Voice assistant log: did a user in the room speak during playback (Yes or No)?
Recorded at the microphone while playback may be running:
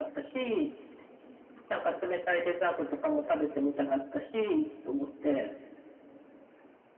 No